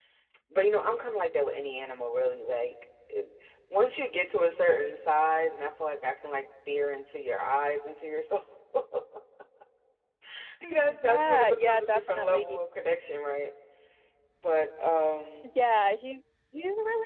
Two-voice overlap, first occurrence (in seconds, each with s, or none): 10.8 s